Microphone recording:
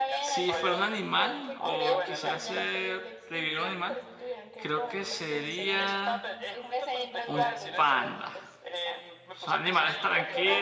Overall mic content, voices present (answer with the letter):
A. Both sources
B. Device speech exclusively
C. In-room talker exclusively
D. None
A